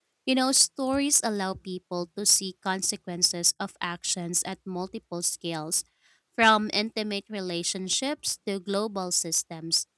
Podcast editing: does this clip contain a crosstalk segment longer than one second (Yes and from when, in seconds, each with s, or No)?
No